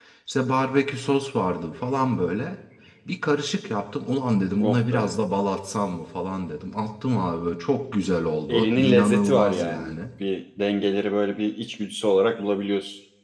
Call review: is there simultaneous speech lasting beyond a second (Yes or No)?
Yes